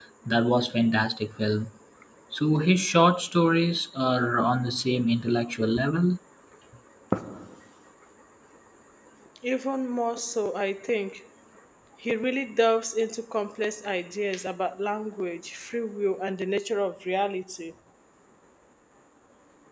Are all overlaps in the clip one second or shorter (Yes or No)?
Yes